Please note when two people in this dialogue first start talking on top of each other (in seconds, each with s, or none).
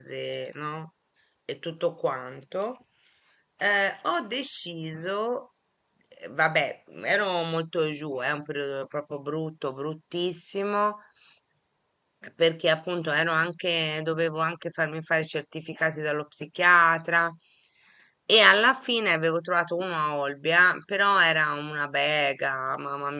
none